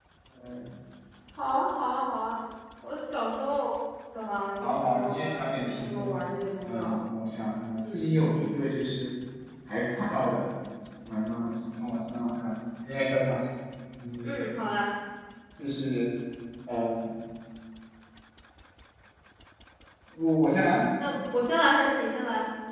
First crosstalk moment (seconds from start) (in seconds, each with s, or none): 4.6 s